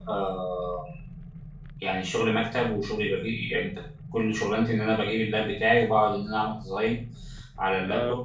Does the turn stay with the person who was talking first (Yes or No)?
Yes